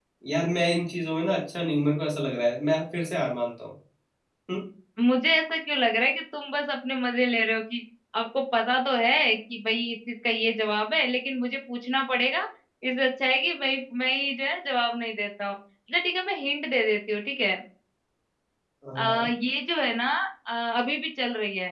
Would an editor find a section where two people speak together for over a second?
No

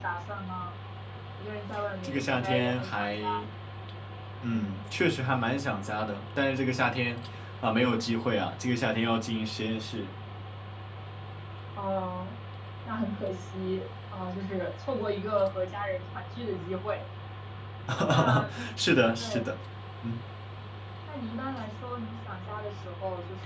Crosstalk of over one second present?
Yes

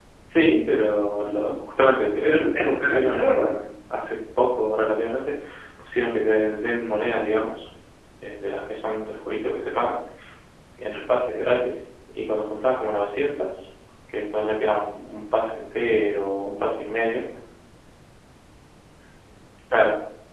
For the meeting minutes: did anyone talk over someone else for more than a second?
Yes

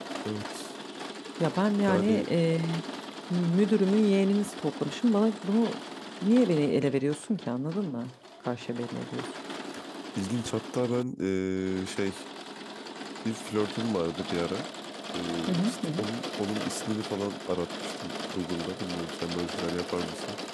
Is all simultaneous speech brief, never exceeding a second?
Yes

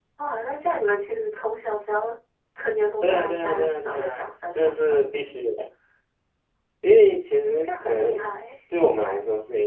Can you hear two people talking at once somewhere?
Yes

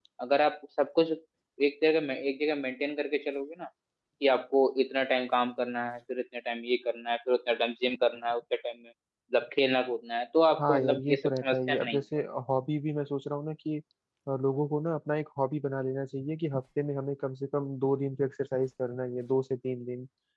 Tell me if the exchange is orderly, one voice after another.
No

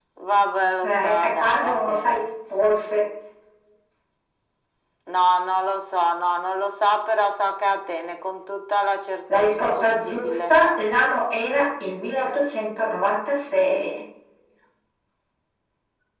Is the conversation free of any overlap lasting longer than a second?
No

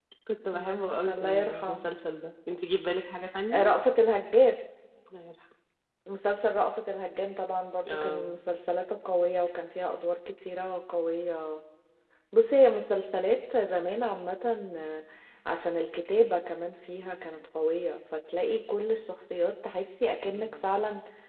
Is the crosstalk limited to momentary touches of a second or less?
No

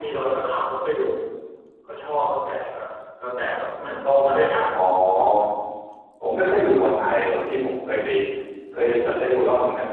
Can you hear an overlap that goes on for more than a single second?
No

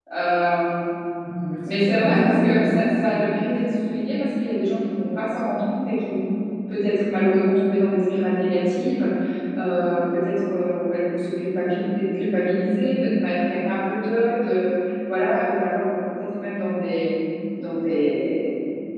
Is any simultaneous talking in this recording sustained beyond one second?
Yes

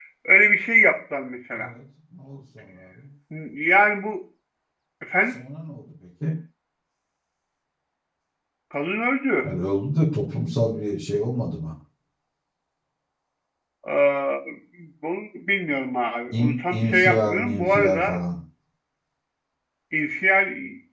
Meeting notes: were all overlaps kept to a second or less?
No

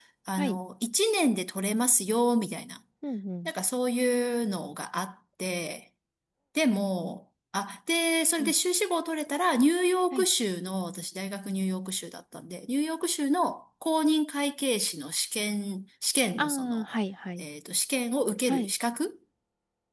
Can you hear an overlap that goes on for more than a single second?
No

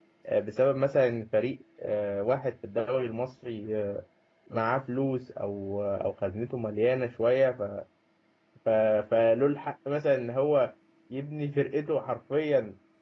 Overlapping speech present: No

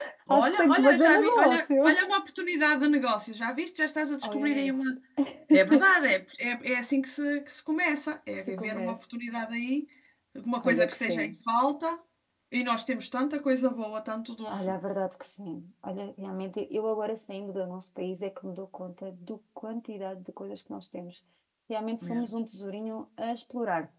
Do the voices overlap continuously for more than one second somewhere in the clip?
Yes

